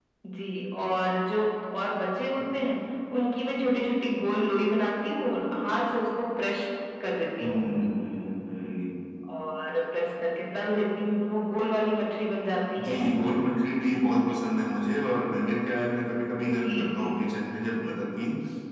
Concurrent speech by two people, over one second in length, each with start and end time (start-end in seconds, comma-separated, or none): none